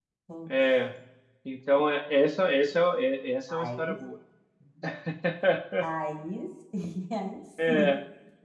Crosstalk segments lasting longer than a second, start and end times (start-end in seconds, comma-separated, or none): none